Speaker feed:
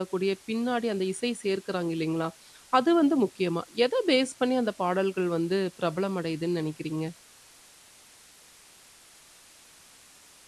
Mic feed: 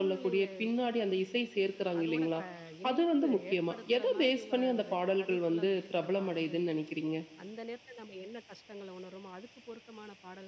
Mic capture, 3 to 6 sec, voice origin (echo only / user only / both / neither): both